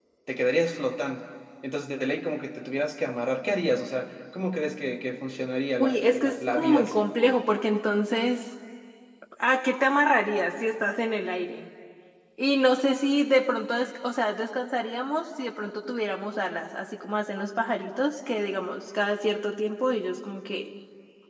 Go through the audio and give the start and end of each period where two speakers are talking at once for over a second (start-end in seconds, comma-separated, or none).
5.8-7.0